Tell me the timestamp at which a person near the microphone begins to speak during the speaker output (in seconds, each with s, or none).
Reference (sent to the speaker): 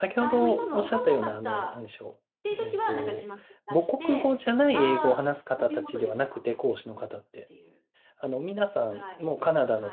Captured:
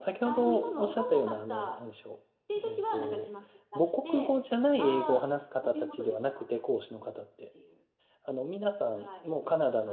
none